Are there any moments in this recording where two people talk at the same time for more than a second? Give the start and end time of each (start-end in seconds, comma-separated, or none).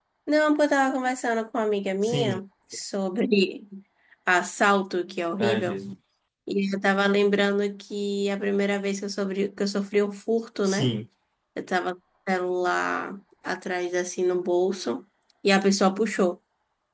none